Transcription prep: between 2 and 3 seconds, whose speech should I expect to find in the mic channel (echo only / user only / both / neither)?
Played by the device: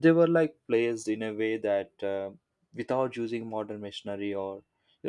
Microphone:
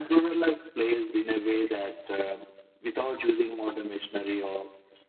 echo only